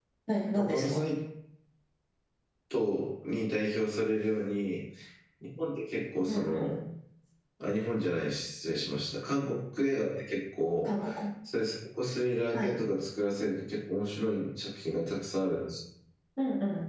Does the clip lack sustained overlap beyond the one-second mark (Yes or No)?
Yes